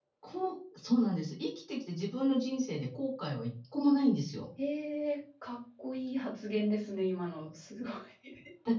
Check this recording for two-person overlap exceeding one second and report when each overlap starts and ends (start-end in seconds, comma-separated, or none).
none